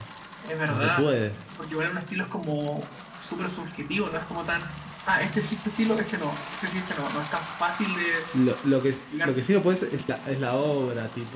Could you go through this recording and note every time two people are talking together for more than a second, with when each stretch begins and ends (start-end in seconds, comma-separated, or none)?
none